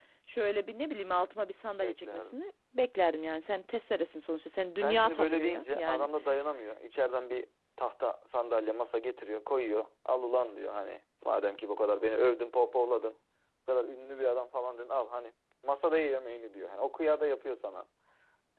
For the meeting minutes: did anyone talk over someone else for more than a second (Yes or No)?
Yes